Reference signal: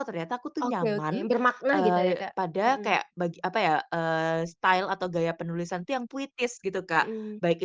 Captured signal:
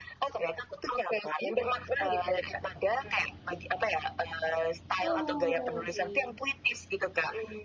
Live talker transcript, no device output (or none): Oh, oke.